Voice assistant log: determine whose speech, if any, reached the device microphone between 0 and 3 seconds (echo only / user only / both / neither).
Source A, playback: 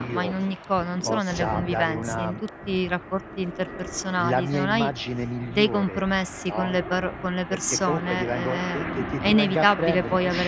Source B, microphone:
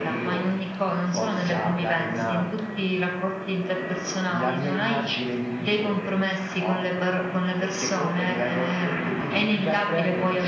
echo only